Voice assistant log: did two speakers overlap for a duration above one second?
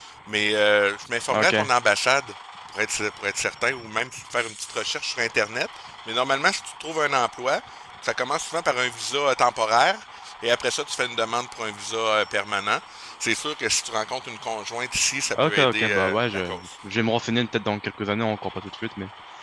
Yes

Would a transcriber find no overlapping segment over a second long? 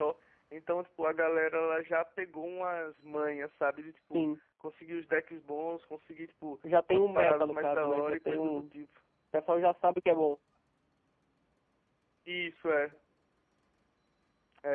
No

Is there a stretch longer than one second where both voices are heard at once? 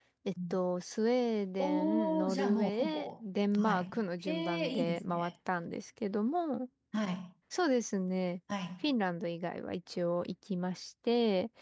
Yes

